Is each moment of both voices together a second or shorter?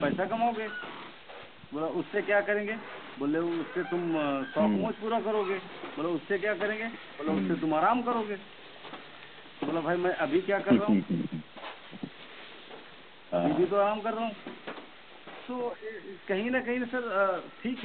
Yes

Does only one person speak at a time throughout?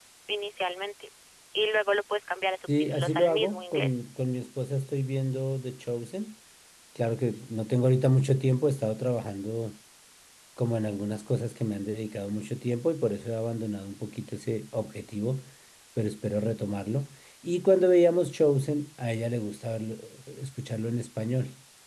No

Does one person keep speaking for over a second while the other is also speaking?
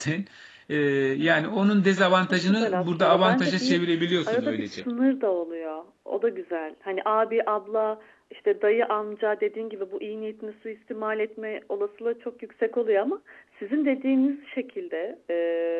Yes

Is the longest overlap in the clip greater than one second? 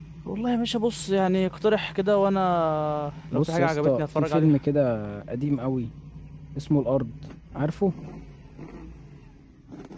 Yes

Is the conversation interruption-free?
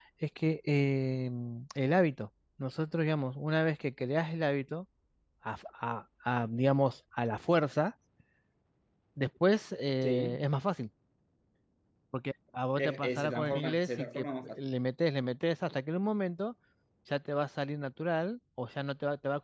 No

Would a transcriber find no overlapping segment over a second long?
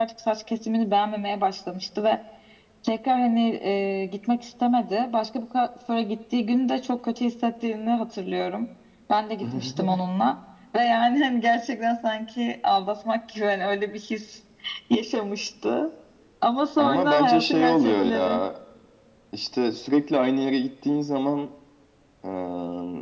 No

